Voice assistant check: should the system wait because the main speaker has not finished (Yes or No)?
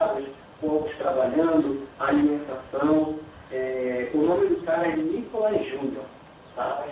Yes